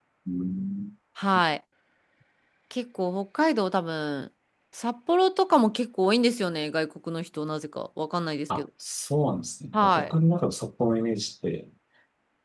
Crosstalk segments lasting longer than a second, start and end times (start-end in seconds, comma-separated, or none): none